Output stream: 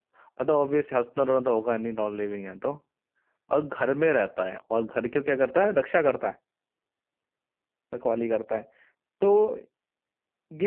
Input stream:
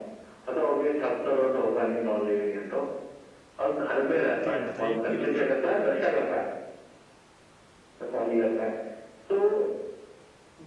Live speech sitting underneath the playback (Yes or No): Yes